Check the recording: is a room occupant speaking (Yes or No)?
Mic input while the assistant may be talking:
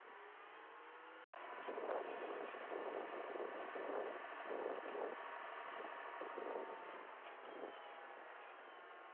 No